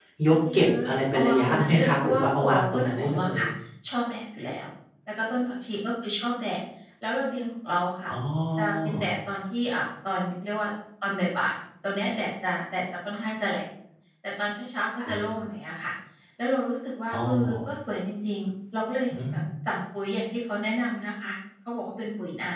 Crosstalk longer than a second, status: present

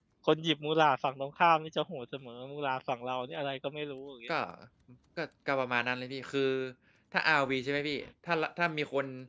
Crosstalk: none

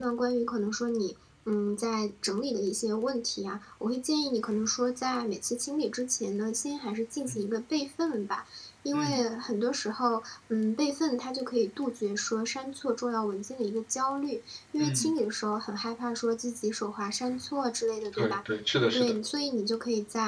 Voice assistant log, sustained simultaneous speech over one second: none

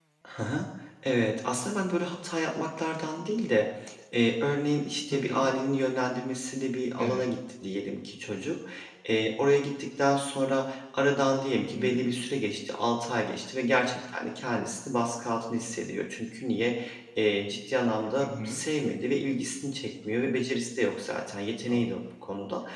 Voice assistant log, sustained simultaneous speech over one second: none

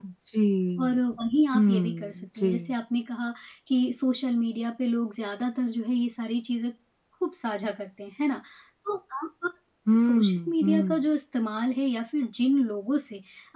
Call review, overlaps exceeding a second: present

